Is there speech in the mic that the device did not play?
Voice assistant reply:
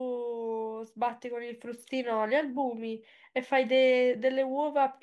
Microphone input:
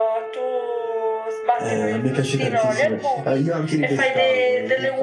Yes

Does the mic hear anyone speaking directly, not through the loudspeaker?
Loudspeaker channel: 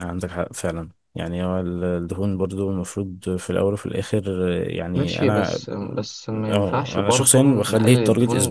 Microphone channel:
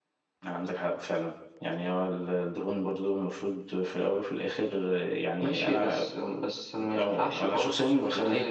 No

